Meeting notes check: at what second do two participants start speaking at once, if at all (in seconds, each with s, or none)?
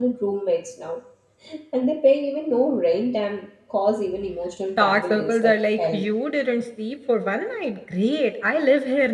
4.7 s